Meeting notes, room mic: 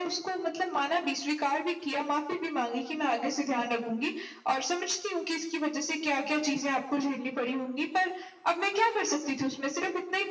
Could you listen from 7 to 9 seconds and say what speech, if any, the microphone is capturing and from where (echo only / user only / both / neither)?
echo only